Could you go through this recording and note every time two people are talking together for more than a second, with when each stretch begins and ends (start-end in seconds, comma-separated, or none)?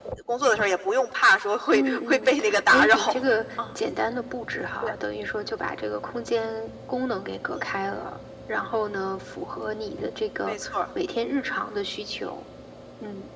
1.7-3.0